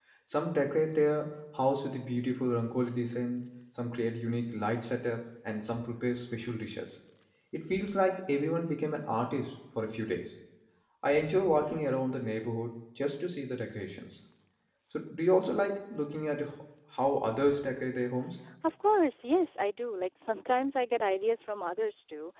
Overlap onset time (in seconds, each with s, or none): none